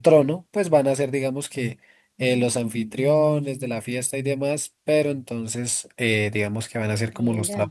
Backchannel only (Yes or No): Yes